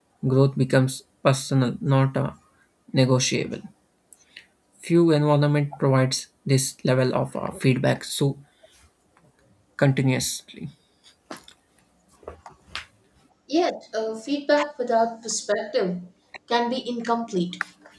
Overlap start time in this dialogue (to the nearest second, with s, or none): none